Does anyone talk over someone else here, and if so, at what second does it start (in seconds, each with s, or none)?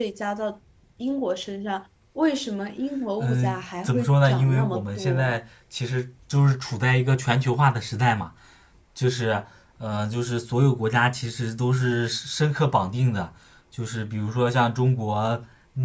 3.2 s